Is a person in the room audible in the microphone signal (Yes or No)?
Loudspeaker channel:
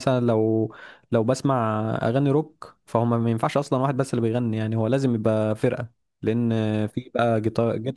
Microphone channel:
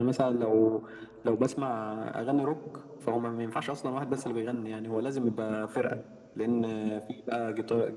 No